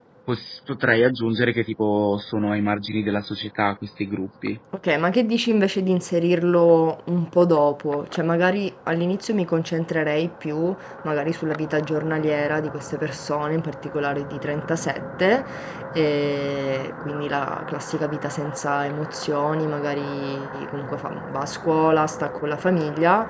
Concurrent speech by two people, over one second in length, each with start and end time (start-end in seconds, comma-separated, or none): none